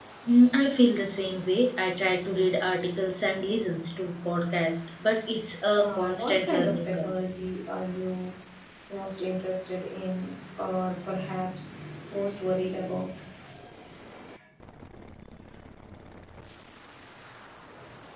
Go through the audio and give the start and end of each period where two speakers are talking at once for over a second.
5.7-7.1

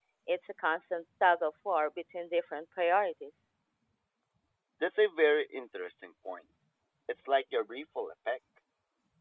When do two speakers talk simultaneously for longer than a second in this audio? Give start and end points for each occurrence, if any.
none

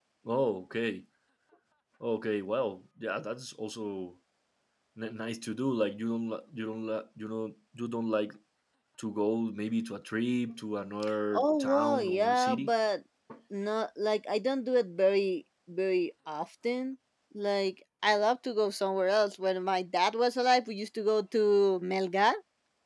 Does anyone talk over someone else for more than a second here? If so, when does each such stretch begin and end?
11.3-12.7

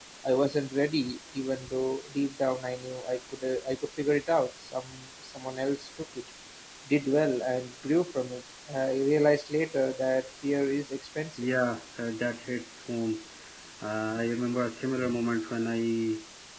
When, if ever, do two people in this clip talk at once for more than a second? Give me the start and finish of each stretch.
none

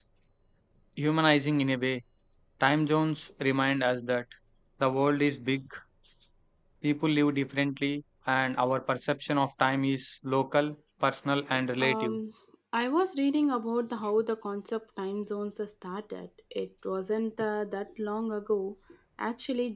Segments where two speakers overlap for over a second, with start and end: none

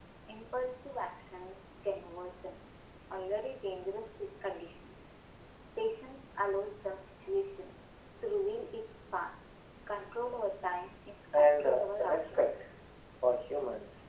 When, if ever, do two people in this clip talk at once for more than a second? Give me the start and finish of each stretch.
11.3-12.7

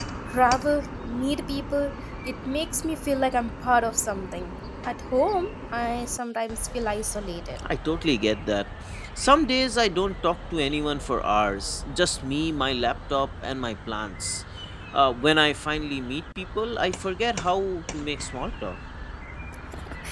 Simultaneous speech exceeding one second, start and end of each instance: none

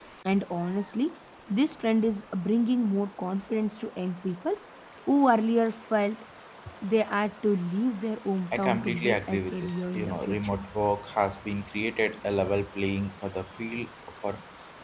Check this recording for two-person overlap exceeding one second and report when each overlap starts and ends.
8.5-10.6

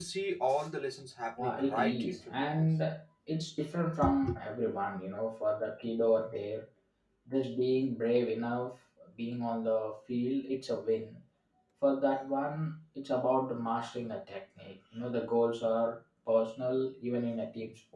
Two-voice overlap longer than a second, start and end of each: 1.4-2.7

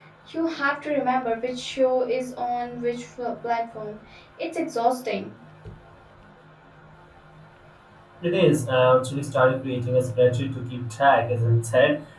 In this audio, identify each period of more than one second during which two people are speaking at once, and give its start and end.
none

